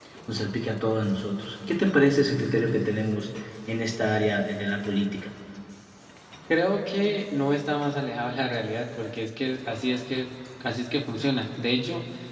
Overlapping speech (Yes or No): No